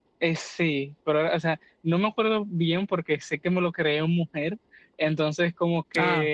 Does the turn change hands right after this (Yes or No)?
No